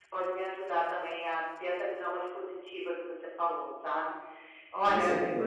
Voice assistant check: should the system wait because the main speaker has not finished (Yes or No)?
Yes